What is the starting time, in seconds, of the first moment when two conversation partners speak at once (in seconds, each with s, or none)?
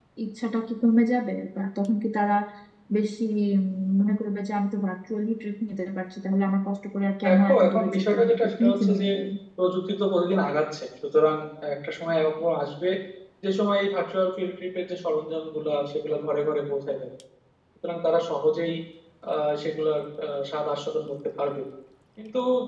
7.2 s